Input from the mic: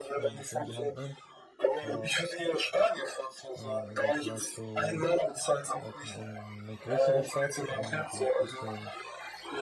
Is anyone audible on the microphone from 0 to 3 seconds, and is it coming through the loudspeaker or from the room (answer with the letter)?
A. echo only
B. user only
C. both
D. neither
C